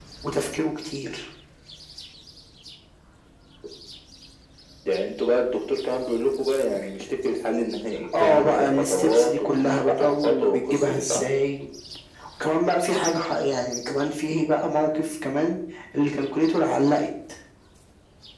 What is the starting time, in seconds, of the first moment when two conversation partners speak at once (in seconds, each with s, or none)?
8.1 s